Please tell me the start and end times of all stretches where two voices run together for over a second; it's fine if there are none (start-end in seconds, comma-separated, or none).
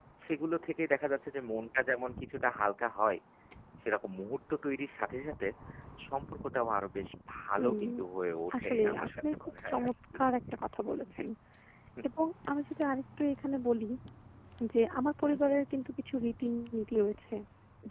8.6-9.9